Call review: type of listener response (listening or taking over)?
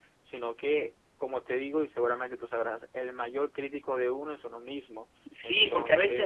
taking over